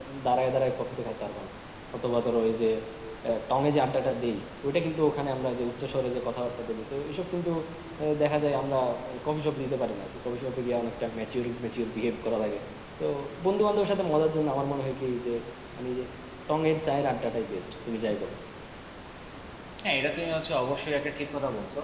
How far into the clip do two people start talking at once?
none

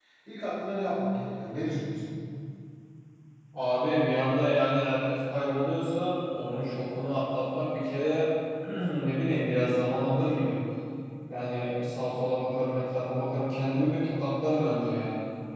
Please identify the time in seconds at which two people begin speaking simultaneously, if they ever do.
none

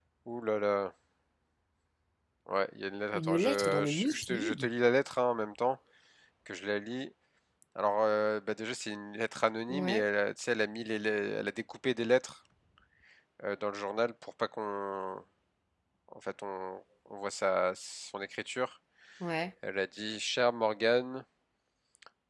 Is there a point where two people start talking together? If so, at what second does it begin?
3.1 s

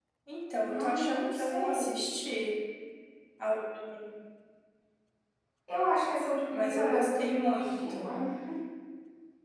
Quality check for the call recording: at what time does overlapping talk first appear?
0.7 s

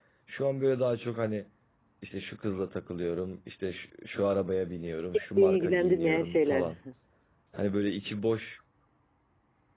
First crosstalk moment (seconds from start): 5.1 s

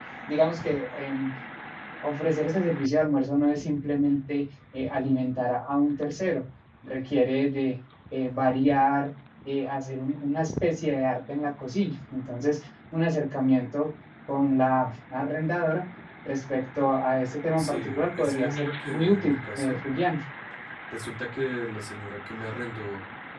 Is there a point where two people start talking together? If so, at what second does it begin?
17.6 s

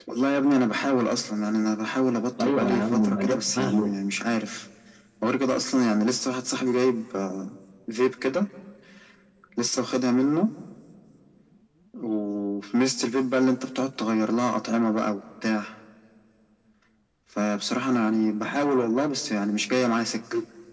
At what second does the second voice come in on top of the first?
2.4 s

